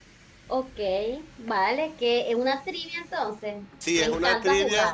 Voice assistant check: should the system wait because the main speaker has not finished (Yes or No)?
No